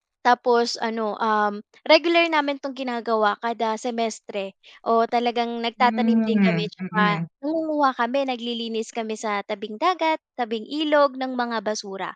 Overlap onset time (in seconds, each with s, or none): 5.8 s